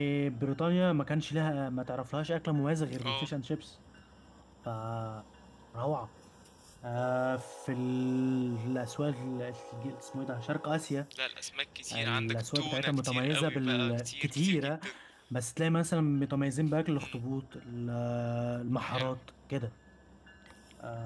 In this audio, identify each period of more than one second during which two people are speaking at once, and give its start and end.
11.9-14.7

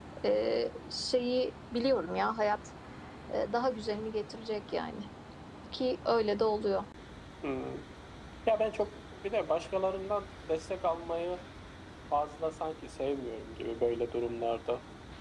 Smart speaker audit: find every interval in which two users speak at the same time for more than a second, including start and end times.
none

